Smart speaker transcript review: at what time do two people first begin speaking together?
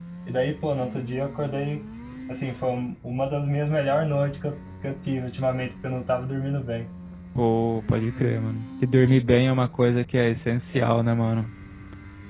none

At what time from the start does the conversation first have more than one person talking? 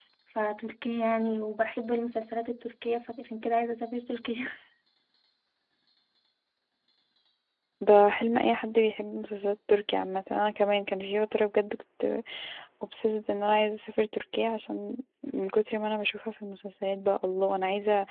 none

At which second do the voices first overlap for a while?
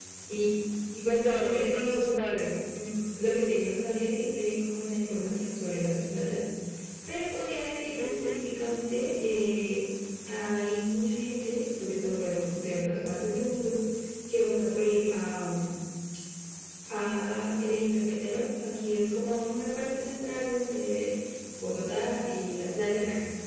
1.1 s

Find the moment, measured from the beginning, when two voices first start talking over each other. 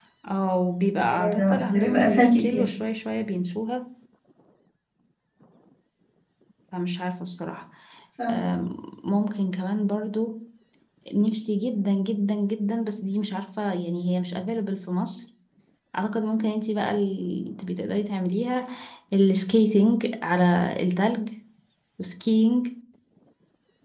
1.0 s

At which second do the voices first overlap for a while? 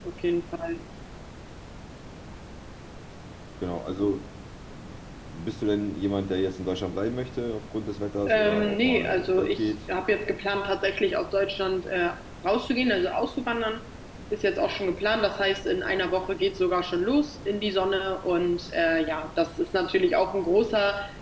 8.3 s

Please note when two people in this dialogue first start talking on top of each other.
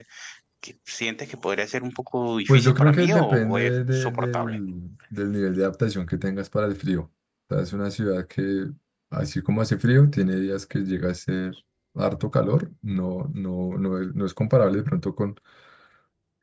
2.5 s

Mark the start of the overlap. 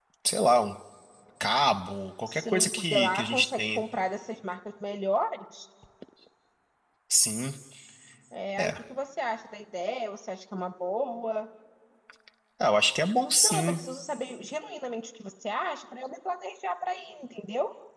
2.3 s

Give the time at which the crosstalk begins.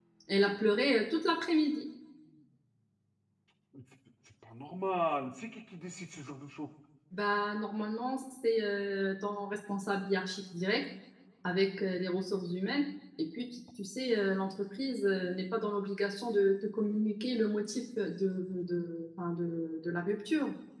none

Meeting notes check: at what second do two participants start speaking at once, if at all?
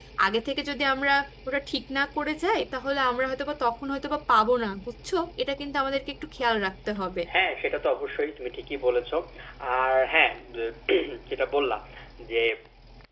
none

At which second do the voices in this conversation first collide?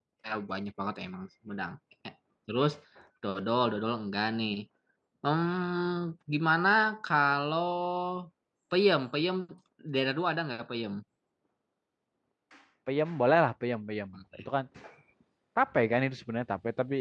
none

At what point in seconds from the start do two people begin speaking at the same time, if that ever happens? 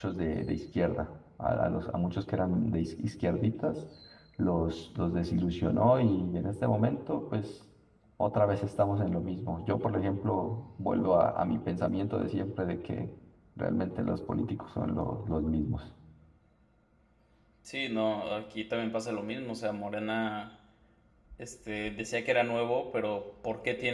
none

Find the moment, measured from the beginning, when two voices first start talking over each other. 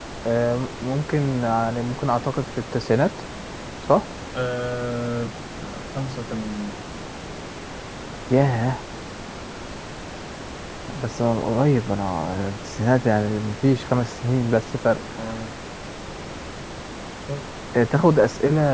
none

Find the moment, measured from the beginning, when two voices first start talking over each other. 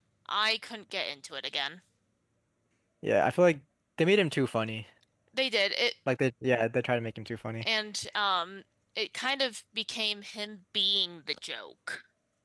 none

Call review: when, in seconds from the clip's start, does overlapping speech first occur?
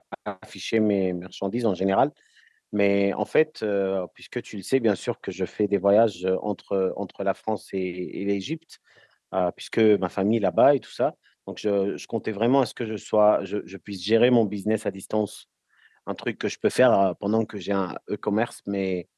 none

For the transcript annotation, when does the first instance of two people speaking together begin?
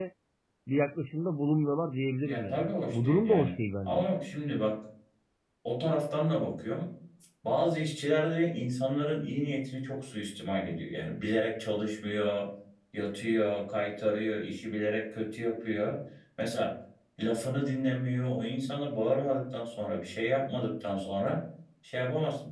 2.2 s

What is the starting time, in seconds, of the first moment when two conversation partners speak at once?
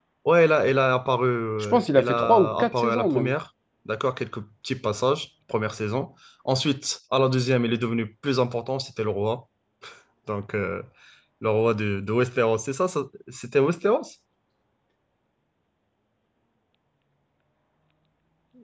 1.6 s

